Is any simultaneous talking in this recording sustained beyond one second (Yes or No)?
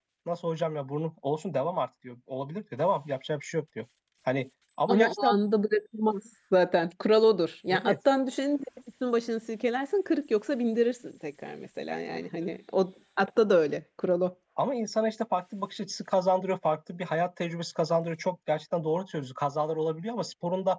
No